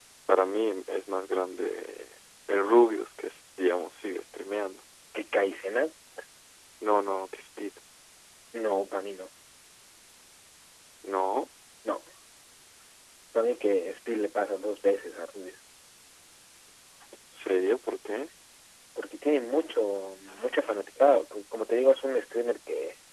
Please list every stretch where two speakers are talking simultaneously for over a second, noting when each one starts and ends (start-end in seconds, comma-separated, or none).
none